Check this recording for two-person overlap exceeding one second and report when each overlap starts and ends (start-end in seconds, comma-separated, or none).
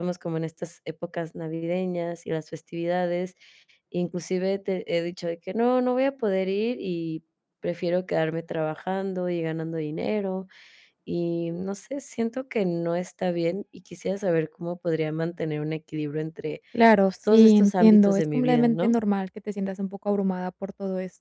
17.3-18.9